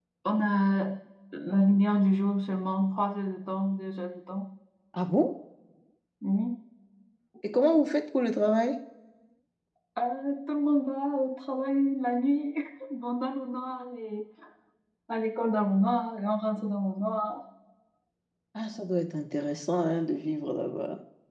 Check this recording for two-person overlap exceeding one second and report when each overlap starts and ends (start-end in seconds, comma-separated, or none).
none